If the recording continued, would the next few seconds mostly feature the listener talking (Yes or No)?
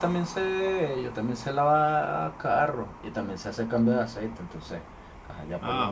Yes